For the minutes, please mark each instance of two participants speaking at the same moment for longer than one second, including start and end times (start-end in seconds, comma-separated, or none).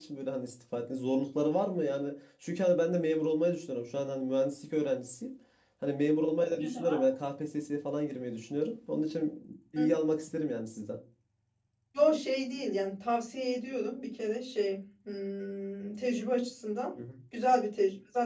none